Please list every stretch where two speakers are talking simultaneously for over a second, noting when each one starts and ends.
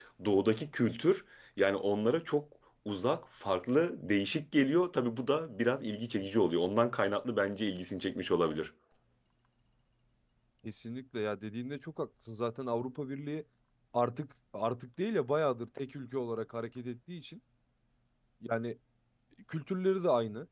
none

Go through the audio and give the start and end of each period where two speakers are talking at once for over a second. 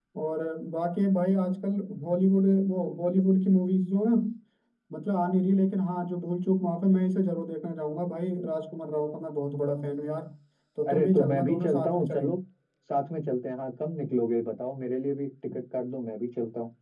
10.9-12.3

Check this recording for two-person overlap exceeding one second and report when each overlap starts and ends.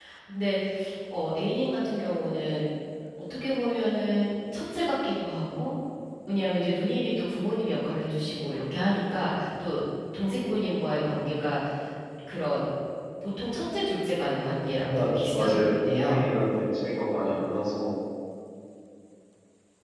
14.9-16.2

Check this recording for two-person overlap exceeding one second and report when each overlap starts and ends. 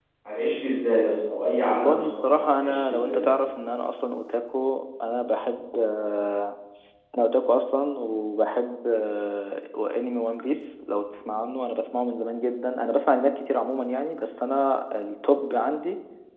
1.7-3.2

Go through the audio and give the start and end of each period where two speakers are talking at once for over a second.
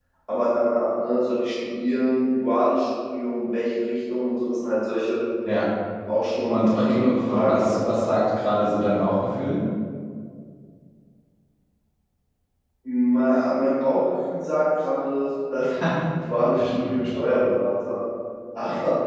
6.5-7.8

